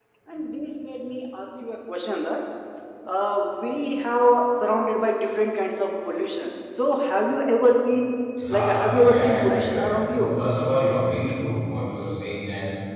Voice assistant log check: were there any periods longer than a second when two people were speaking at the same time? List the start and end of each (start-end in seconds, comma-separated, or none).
8.5-10.3